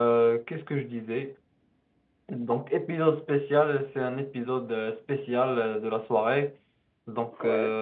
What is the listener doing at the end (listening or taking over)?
listening